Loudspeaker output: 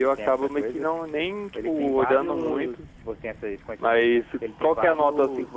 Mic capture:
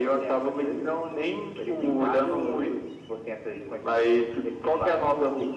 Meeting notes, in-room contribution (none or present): none